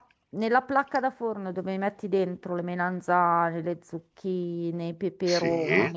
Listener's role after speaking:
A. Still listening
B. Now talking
A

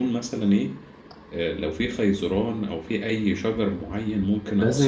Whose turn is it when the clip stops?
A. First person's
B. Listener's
B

